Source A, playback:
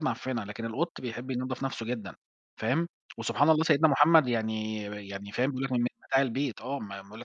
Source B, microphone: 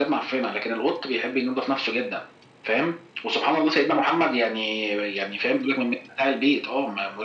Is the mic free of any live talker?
Yes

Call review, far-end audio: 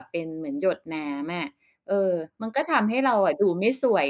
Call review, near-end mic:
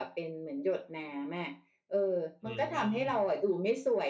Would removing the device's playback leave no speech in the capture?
No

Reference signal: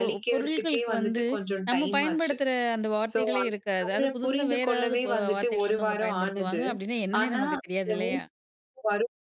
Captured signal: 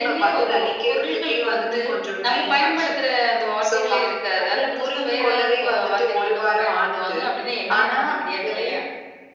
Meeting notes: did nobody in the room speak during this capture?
Yes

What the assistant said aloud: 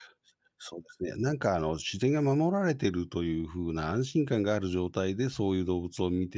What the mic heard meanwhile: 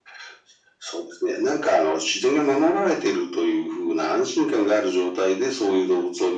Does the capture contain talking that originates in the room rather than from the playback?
No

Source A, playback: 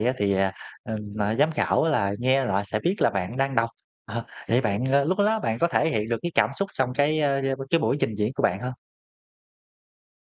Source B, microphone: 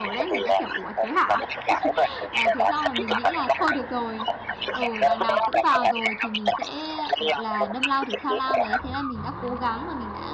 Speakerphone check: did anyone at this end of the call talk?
Yes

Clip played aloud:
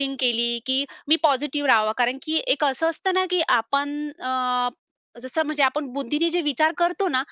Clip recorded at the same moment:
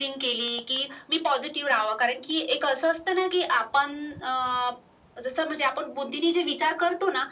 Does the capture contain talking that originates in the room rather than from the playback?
No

